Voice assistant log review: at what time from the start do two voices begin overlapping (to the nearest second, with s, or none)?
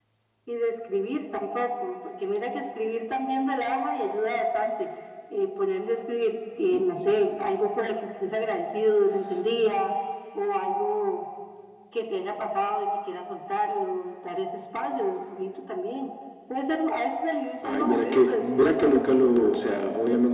18 s